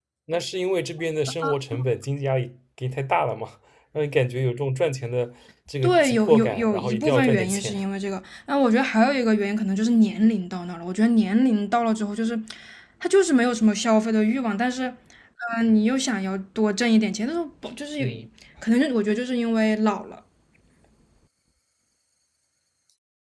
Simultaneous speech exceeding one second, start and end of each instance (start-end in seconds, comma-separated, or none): 5.8-7.7